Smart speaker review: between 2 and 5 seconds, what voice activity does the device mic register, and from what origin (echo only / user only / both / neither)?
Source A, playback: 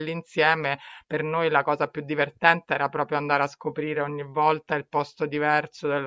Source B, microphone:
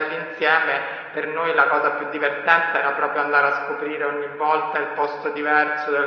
echo only